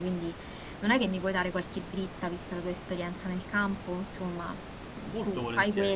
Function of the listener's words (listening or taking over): listening